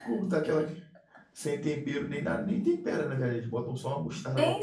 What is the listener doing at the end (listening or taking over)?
taking over